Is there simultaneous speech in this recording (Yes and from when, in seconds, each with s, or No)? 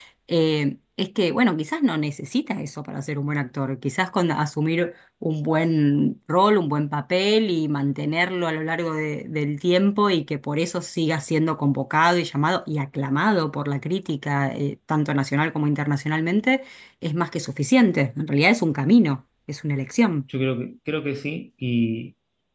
No